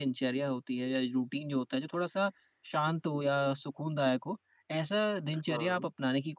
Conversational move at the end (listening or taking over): listening